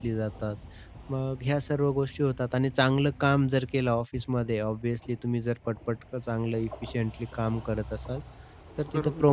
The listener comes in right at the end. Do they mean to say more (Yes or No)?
No